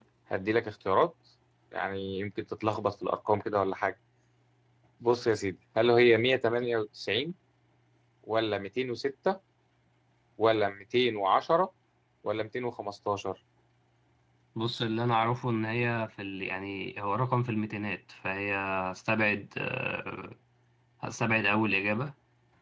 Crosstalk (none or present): none